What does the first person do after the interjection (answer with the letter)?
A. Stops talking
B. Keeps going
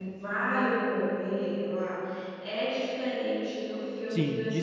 A